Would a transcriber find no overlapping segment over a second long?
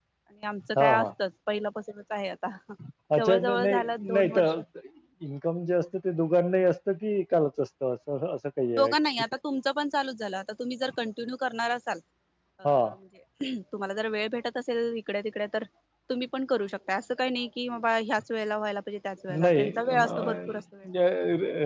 No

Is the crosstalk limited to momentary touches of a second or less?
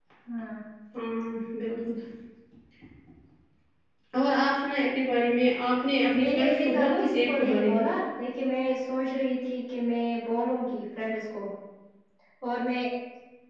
No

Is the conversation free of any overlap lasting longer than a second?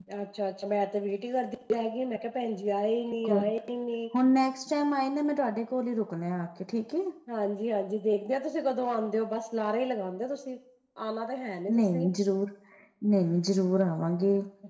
Yes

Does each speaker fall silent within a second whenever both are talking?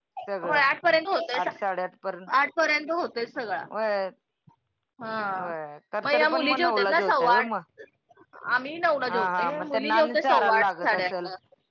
No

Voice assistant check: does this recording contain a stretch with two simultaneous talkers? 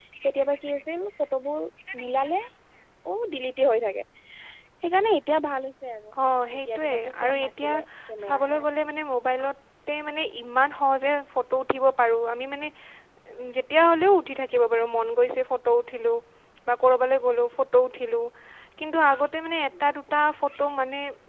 Yes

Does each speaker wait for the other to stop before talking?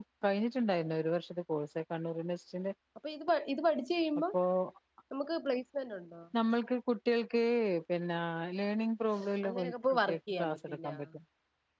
No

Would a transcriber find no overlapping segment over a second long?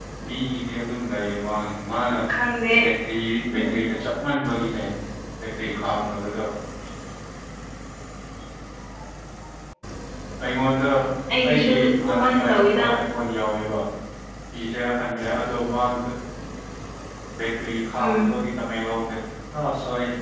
No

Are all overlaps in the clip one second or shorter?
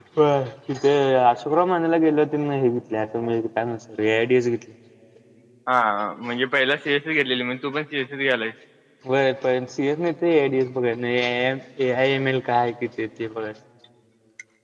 Yes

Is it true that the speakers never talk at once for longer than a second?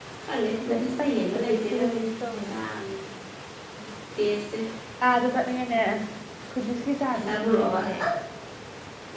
No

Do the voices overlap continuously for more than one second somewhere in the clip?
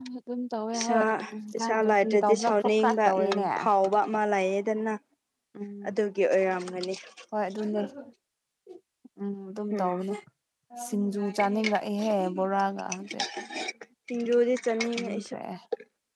Yes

